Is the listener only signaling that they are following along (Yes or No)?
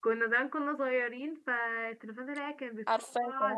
Yes